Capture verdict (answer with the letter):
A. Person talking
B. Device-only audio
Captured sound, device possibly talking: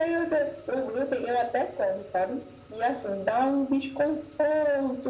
B